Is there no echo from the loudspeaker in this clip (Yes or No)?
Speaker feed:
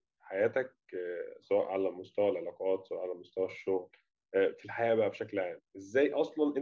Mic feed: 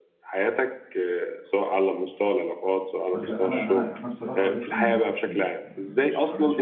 No